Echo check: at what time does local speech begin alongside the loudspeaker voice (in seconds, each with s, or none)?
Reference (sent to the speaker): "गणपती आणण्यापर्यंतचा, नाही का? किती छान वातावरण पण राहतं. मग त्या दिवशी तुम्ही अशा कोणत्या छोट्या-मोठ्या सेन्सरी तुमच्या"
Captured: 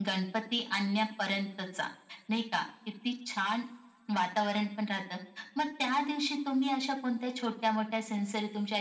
none